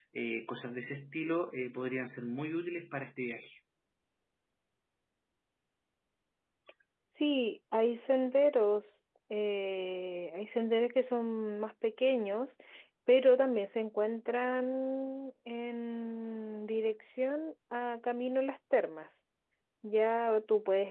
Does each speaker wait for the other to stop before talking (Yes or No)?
Yes